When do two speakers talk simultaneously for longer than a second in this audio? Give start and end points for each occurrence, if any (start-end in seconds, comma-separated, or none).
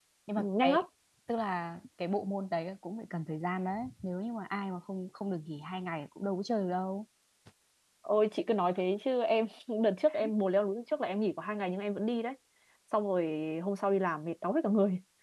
none